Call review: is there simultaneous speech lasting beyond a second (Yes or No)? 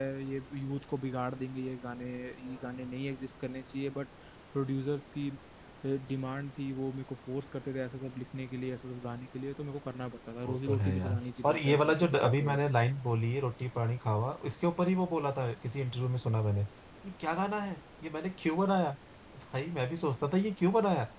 Yes